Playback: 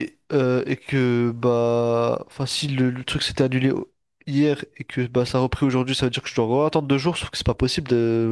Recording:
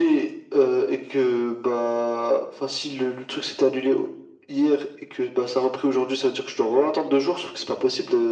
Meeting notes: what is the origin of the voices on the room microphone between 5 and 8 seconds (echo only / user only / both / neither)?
echo only